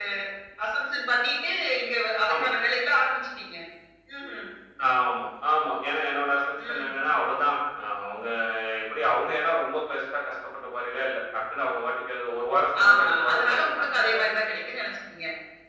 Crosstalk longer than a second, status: present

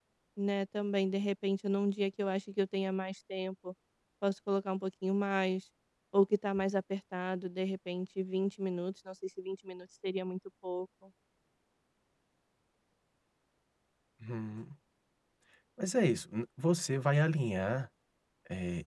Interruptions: none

